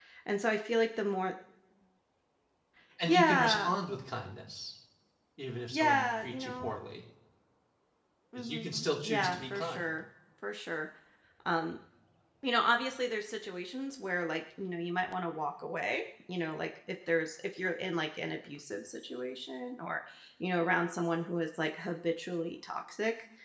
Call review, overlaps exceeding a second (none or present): present